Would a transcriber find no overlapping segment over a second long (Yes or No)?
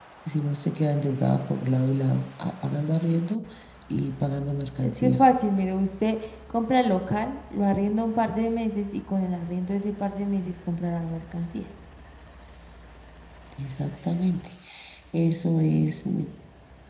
Yes